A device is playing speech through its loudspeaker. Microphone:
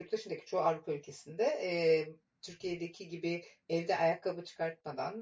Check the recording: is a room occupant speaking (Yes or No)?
Yes